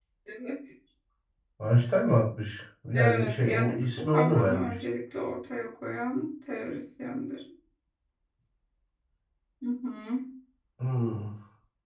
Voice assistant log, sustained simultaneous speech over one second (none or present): present